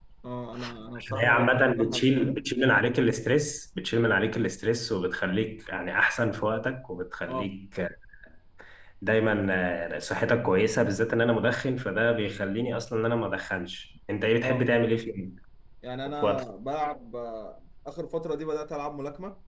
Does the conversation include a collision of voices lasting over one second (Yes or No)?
Yes